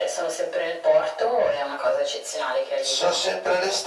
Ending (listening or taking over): taking over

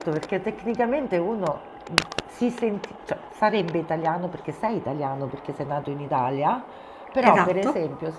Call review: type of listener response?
listening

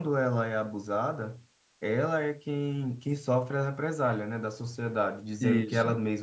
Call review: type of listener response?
listening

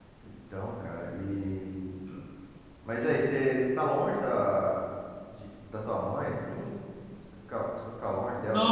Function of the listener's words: taking over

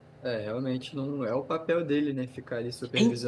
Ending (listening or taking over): taking over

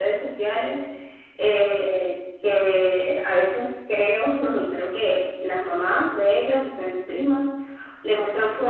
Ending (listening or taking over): listening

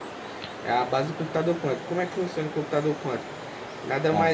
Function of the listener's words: listening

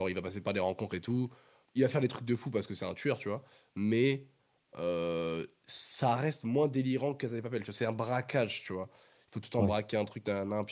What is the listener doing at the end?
listening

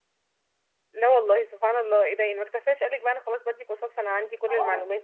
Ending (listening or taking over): taking over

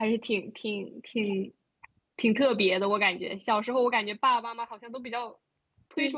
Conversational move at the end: listening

